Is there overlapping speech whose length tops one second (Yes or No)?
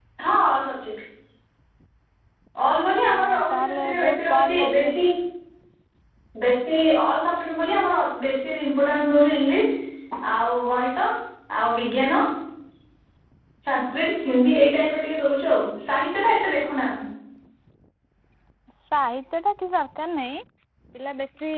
Yes